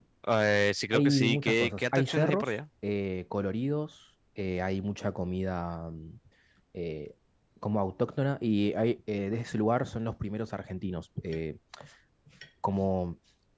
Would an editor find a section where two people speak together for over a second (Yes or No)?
Yes